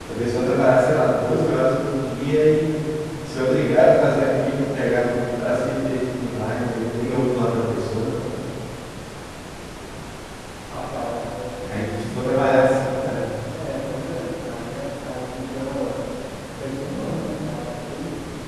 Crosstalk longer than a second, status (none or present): none